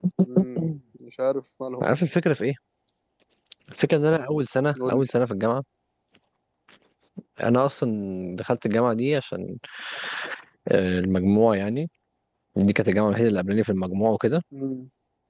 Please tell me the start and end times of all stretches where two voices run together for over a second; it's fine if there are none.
none

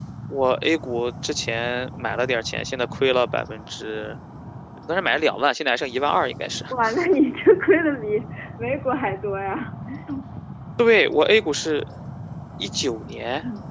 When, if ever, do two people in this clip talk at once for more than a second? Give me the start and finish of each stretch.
none

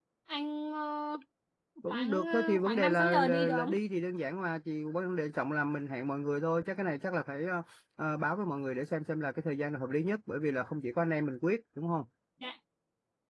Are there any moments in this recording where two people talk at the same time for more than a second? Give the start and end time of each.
1.9-3.7

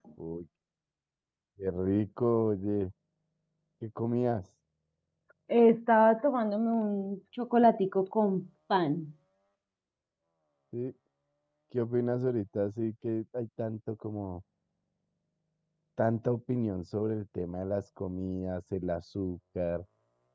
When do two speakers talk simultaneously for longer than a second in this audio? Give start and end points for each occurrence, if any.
none

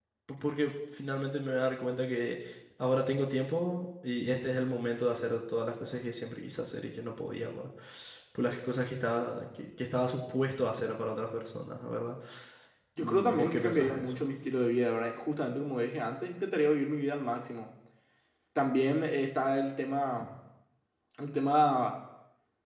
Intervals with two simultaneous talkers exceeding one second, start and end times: 13.0-14.2

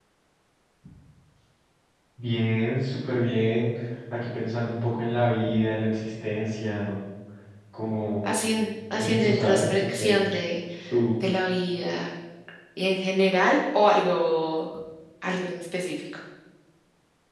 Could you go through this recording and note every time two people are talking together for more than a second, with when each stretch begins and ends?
9.0-10.2

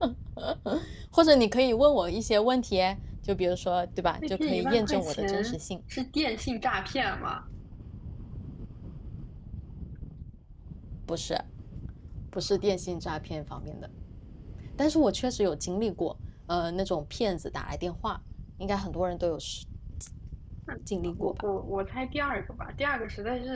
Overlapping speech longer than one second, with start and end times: 4.3-5.6

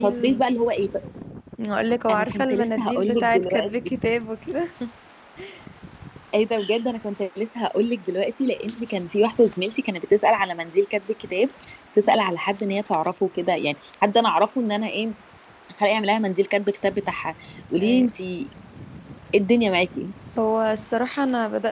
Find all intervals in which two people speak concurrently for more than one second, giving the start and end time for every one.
2.1-3.9

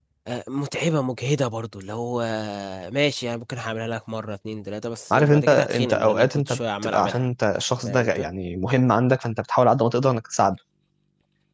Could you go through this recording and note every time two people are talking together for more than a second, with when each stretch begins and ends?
5.1-7.2

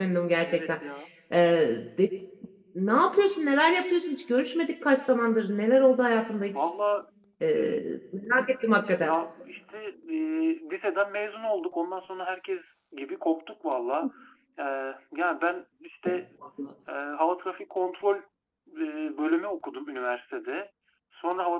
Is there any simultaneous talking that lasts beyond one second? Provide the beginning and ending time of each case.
none

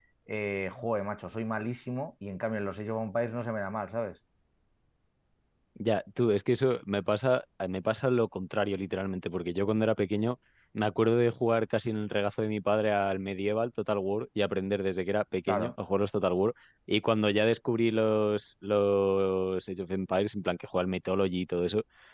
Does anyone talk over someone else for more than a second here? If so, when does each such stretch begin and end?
none

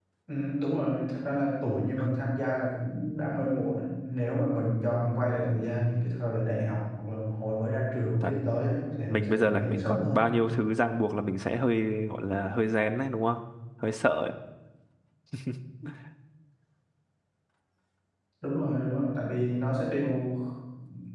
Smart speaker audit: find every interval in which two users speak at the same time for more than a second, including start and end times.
9.1-10.3

